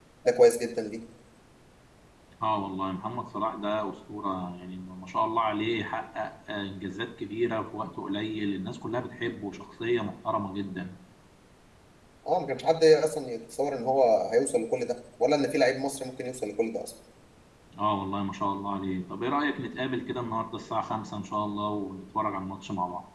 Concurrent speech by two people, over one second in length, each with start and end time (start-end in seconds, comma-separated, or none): none